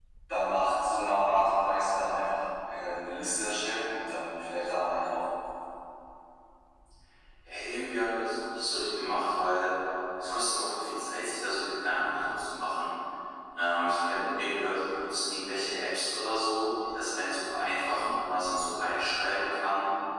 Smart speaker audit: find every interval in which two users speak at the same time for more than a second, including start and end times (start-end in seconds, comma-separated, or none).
none